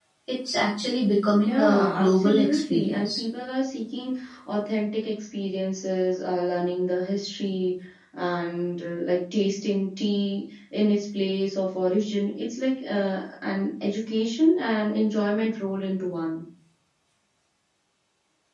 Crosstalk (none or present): present